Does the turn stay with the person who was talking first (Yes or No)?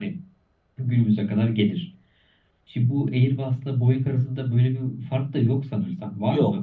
No